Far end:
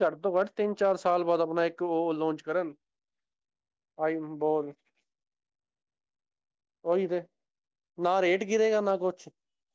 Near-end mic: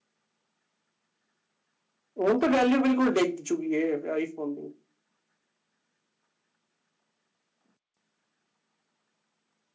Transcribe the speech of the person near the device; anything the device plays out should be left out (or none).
ਹੁਣ ਤਾਂ ਵੈਲਿਊ ਬਿਲਕੁਲ ਡਿੱਗ ਚੁੱਕੀ ਆਈਫੋਨ ਦੀ